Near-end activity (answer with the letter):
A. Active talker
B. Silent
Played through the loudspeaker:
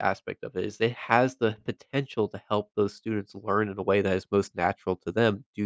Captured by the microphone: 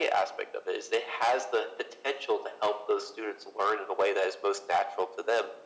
B